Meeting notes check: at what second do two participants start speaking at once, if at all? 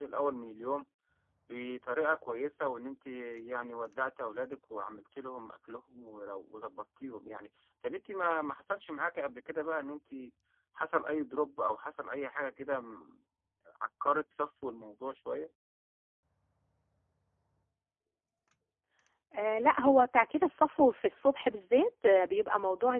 none

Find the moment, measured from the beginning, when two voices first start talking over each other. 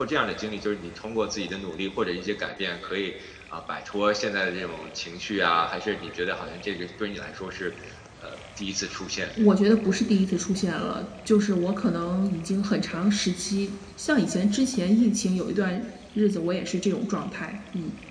none

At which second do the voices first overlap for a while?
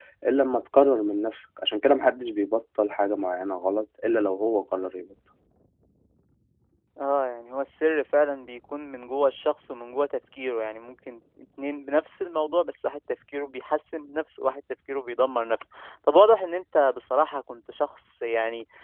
none

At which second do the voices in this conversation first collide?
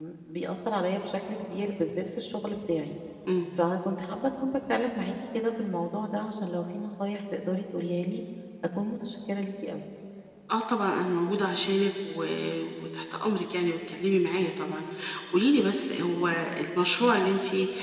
none

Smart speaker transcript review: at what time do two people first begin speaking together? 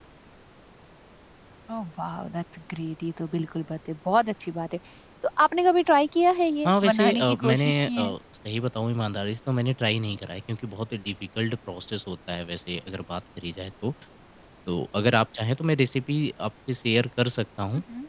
6.6 s

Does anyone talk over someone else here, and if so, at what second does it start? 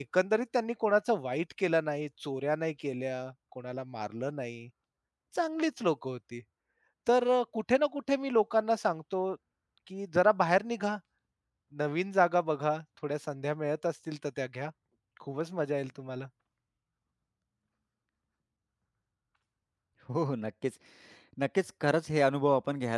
none

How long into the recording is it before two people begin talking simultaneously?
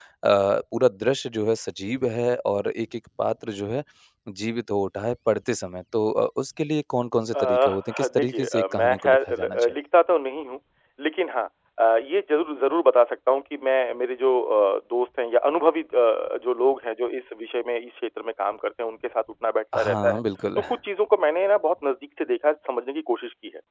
7.3 s

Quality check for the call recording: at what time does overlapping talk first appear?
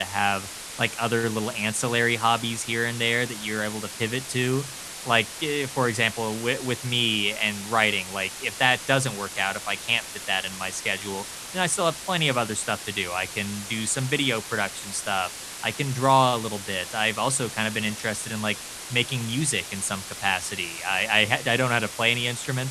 none

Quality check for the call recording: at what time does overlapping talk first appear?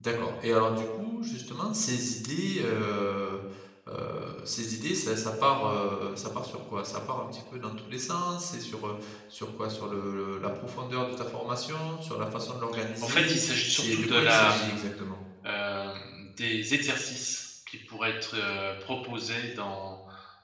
13.0 s

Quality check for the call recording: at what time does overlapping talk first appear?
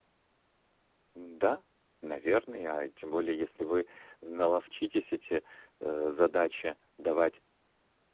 none

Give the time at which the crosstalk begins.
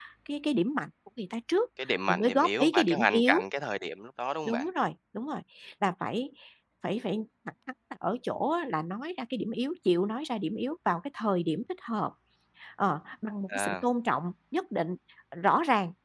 2.1 s

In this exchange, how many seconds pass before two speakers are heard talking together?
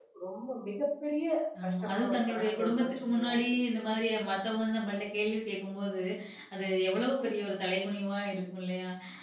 1.7 s

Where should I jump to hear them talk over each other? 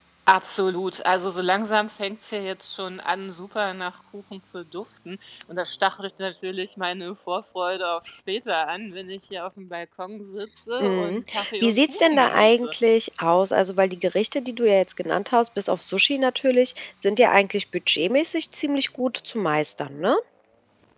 10.8 s

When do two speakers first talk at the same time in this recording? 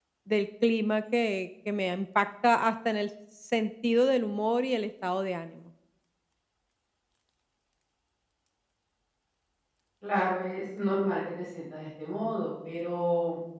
none

